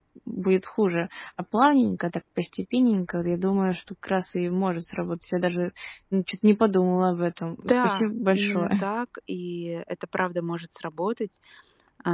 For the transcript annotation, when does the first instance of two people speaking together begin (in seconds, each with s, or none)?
7.6 s